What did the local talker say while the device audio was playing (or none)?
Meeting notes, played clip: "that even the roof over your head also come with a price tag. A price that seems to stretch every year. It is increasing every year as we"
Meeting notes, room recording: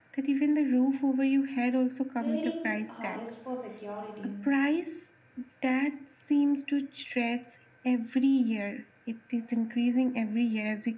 trading uh, rest for security.